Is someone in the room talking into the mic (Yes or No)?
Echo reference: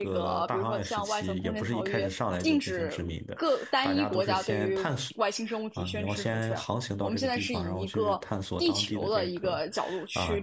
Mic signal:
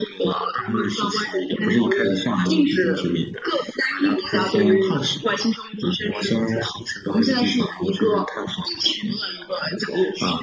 No